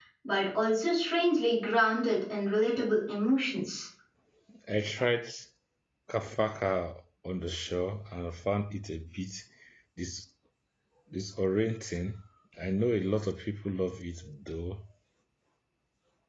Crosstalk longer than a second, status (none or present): none